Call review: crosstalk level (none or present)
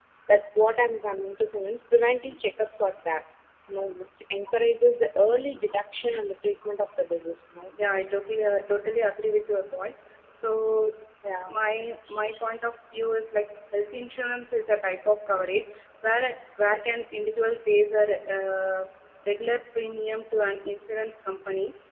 none